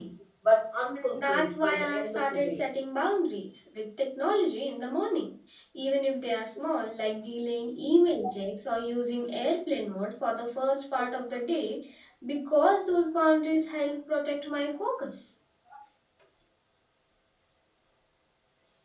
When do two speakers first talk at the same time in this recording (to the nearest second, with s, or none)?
1 s